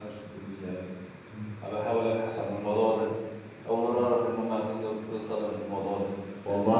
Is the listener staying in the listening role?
Yes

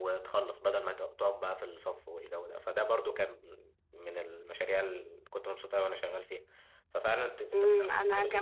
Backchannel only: No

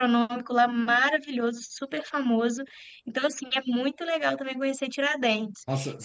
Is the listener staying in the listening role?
No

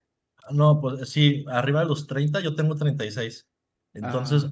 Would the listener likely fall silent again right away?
Yes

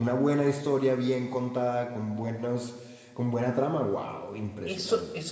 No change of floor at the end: No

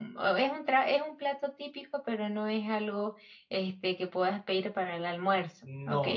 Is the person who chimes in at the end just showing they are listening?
No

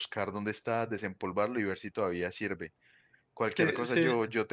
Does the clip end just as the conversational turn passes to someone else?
No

